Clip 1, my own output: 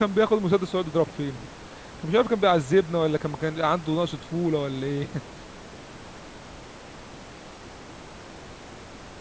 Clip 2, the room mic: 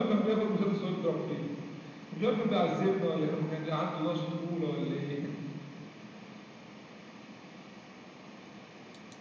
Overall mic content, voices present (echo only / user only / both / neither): echo only